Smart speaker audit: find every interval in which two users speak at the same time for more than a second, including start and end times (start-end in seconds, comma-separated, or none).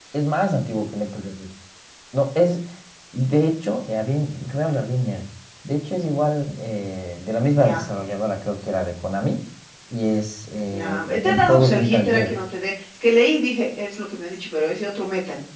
10.7-12.3